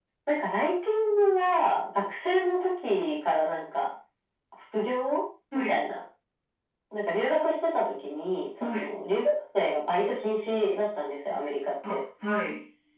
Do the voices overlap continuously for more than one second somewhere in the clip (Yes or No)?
No